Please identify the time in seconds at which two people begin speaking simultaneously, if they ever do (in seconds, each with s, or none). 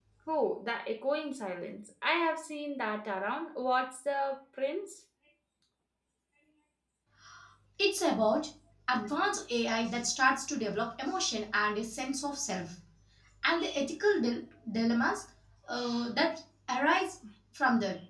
none